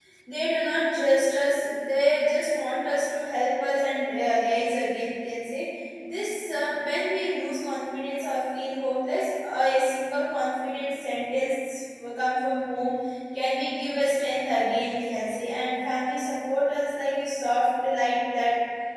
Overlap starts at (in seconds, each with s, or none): none